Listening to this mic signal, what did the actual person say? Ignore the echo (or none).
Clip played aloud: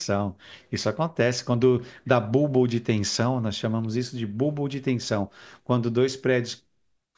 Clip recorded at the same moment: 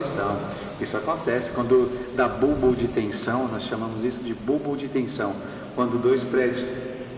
none